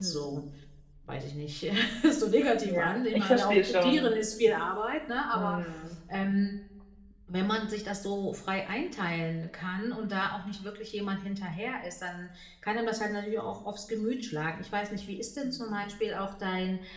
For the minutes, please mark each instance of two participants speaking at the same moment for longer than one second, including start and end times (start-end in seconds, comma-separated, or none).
2.6-4.1